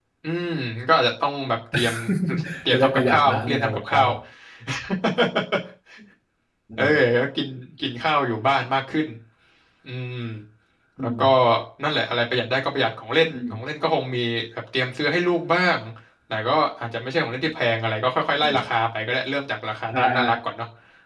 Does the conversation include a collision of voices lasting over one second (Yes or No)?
Yes